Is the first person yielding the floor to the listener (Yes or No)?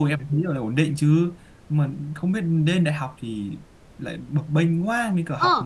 Yes